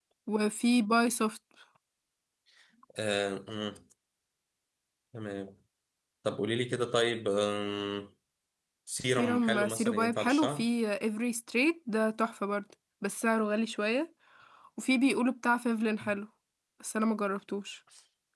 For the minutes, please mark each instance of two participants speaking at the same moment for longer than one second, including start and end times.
9.1-10.7

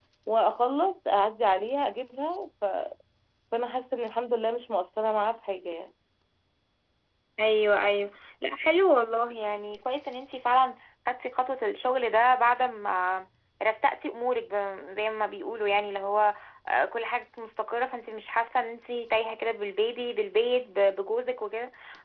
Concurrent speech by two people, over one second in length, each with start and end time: none

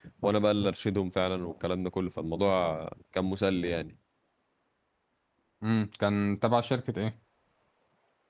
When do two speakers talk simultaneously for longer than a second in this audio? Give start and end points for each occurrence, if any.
none

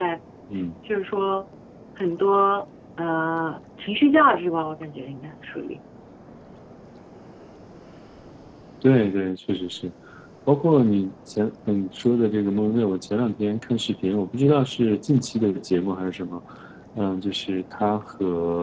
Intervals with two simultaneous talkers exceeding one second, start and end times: none

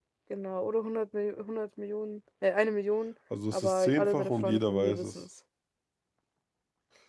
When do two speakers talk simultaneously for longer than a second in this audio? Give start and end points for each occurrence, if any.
3.5-5.2

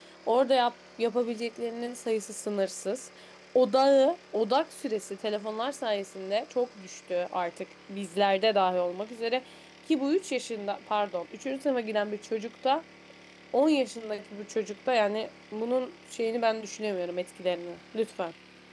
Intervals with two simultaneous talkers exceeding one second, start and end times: none

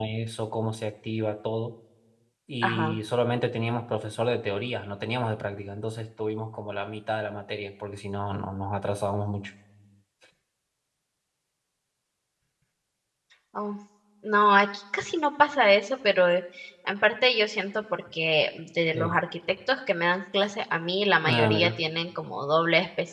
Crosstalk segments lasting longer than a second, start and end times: none

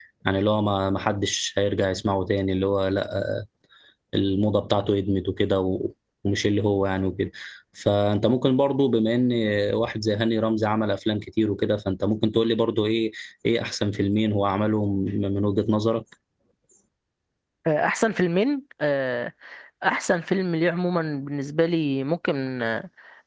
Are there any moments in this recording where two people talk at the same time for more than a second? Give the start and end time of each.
none

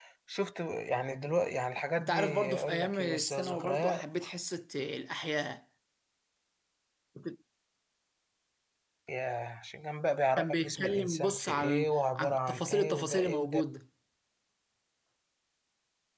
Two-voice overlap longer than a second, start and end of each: 2.0-4.2, 10.4-13.6

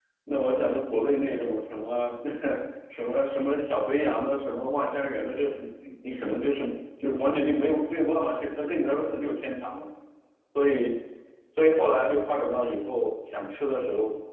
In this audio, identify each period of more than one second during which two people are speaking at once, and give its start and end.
none

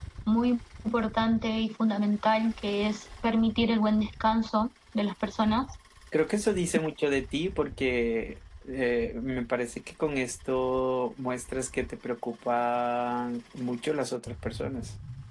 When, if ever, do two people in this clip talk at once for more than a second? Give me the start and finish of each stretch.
none

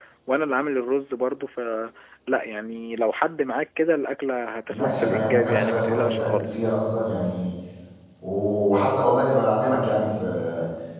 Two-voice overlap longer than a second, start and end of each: 4.7-6.6

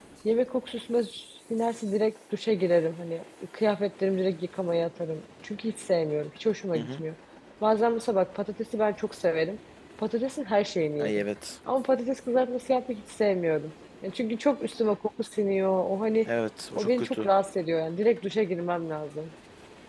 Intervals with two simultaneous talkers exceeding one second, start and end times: none

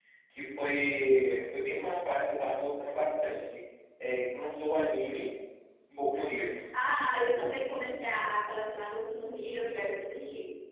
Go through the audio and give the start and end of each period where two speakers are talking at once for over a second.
none

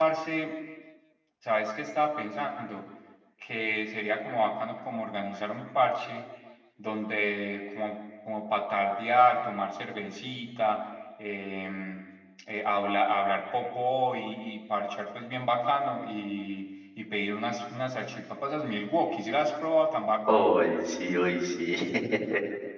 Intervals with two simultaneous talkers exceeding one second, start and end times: none

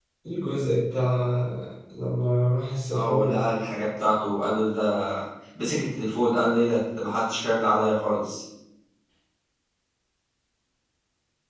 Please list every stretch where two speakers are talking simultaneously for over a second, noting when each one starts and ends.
none

